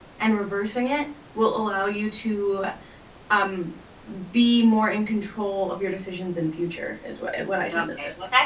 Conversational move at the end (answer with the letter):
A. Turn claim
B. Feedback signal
A